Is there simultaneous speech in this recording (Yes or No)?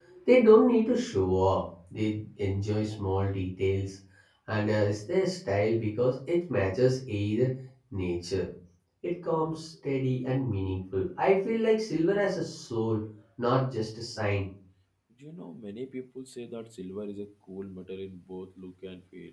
No